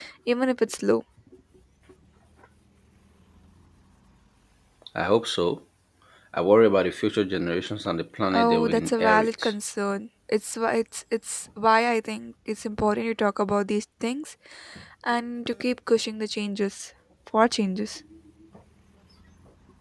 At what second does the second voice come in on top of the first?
8 s

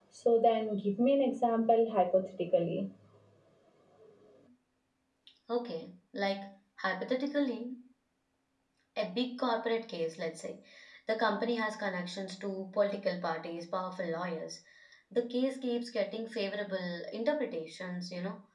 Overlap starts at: none

